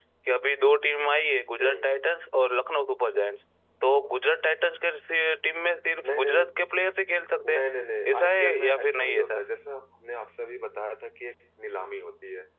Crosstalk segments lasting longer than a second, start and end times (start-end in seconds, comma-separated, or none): 8.1-9.4